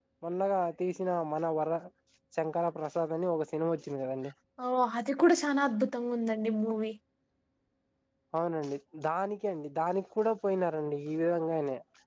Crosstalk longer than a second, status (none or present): none